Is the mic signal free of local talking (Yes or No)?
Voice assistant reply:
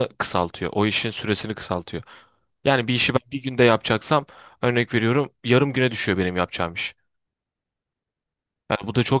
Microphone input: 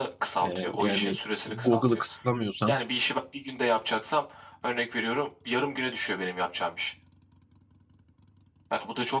No